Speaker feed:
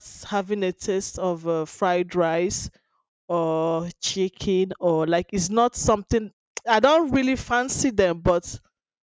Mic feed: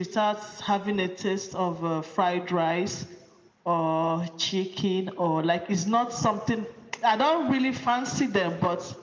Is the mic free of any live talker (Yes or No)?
Yes